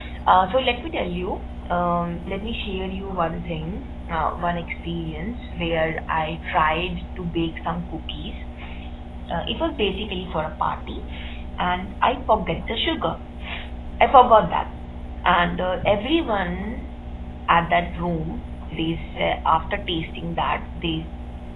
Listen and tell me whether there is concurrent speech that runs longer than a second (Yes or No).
No